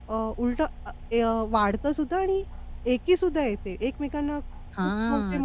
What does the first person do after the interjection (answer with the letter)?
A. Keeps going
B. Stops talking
B